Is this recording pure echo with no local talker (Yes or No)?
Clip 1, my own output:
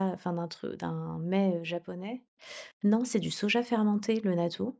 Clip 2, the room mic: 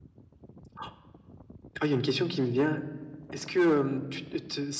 No